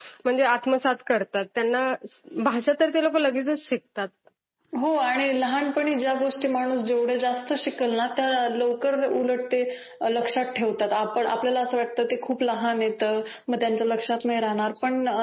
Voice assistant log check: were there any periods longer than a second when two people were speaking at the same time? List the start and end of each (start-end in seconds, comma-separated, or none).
none